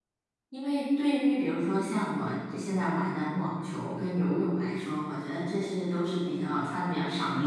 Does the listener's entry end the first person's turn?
Yes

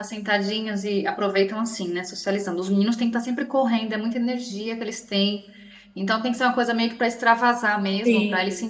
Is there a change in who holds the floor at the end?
No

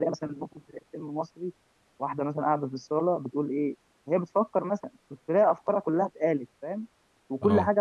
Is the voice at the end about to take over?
No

